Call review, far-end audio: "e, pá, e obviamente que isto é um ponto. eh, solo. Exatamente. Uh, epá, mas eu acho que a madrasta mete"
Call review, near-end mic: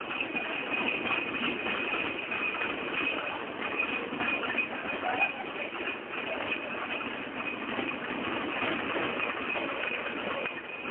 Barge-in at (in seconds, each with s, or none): none